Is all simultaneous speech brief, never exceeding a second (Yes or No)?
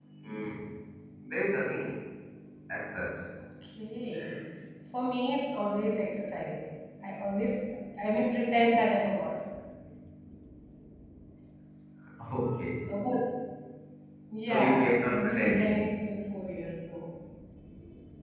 No